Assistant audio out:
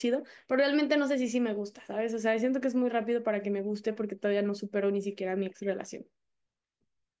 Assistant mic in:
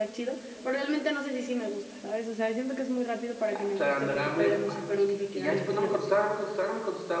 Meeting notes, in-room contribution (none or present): present